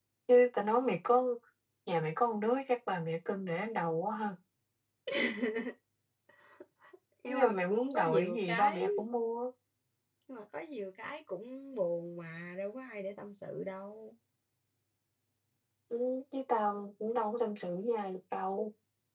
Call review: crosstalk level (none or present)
present